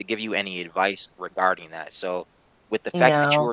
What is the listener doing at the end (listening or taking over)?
listening